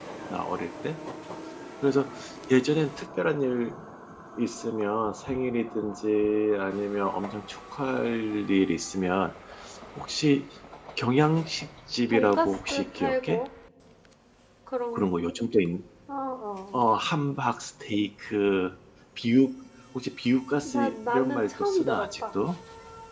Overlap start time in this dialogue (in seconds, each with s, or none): 12.1 s